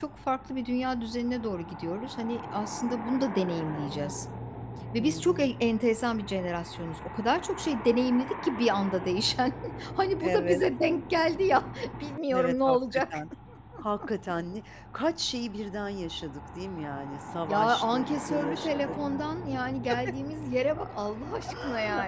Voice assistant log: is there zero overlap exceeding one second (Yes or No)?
No